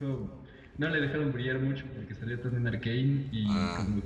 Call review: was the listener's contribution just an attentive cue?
Yes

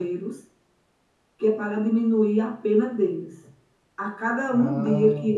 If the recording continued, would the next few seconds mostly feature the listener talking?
No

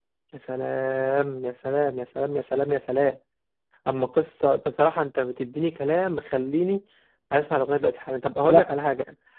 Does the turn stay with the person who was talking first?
Yes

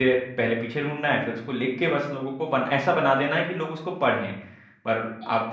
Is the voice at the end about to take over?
No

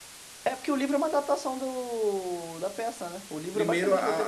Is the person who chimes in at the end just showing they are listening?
No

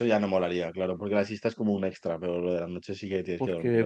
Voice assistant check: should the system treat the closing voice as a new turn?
Yes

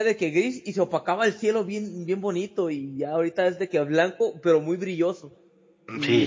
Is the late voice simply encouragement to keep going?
No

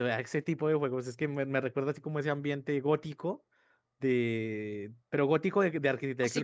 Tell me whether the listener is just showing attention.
No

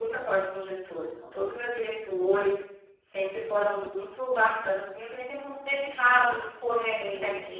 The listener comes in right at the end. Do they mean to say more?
No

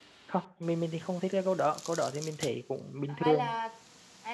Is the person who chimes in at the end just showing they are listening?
No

